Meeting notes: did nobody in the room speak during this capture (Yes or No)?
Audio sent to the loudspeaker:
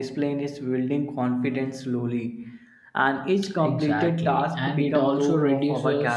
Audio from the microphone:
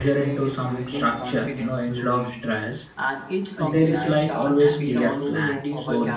No